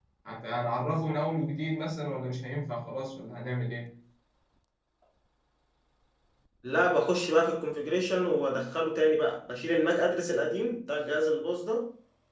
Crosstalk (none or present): none